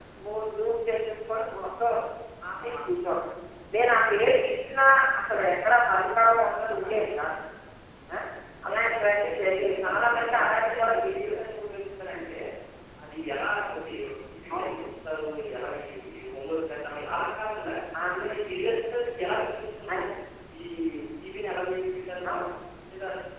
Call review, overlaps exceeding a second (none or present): present